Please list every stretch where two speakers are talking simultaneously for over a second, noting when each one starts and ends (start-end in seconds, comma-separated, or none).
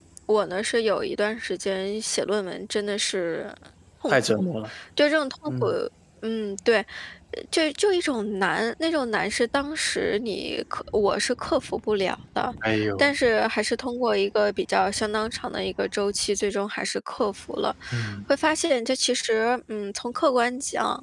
none